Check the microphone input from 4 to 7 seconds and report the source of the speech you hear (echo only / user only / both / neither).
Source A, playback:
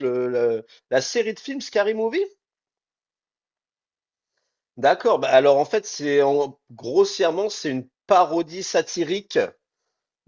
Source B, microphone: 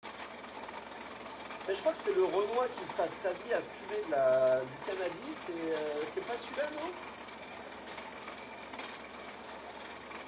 user only